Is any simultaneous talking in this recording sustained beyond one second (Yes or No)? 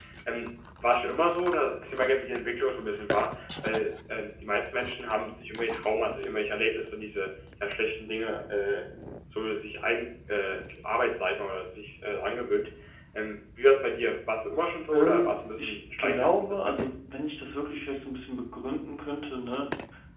Yes